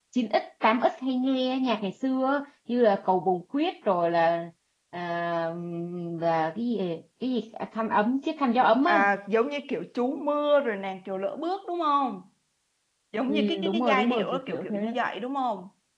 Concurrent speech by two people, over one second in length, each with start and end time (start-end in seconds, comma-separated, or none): 13.3-14.8